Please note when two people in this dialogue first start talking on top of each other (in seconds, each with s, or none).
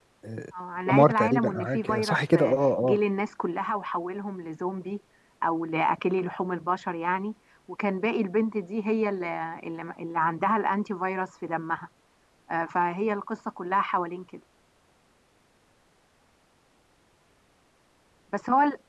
0.9 s